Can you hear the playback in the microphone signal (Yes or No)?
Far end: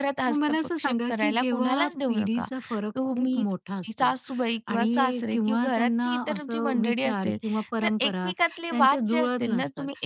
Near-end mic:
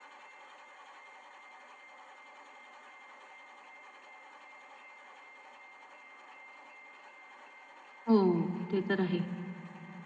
No